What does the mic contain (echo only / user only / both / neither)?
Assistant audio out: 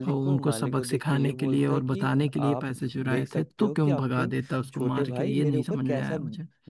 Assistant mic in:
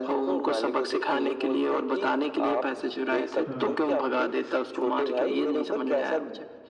both